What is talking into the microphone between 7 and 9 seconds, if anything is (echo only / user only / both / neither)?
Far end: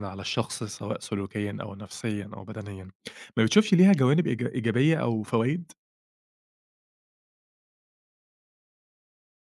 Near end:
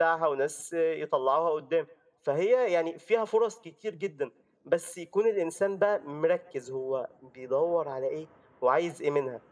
user only